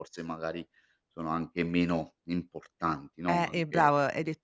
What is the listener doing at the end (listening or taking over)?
taking over